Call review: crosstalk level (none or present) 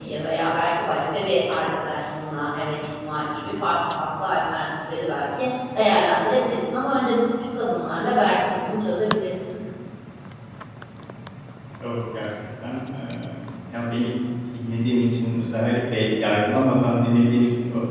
none